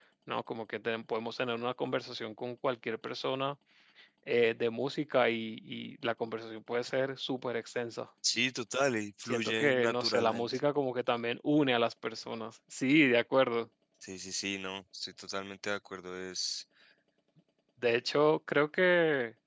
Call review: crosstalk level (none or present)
present